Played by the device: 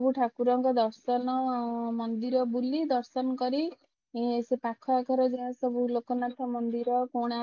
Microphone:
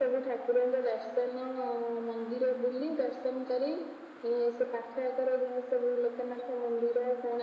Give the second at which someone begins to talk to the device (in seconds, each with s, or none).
none